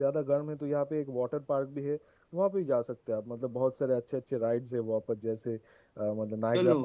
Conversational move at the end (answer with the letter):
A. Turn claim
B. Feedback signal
B